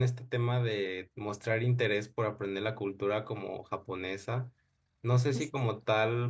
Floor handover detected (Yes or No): No